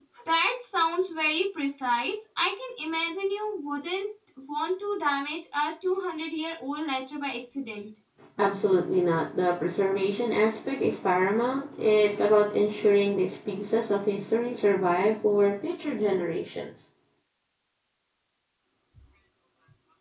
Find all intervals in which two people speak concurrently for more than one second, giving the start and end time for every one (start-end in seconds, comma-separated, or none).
none